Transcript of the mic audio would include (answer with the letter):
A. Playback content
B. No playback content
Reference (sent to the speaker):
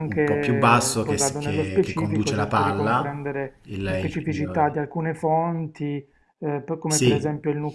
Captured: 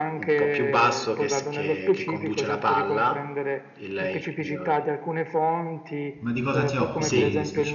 A